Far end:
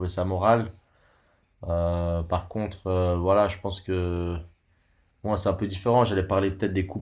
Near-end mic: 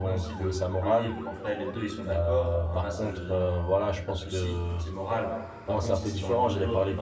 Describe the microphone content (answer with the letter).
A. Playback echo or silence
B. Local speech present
B